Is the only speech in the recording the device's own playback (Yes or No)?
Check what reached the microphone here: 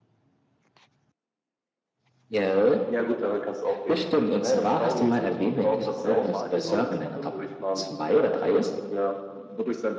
No